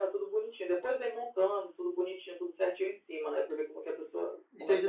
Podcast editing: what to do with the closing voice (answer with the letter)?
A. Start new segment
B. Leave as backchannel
A